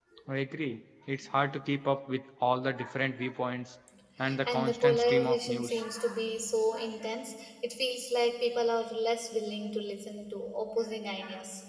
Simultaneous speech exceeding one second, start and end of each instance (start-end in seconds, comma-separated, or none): 4.5-5.8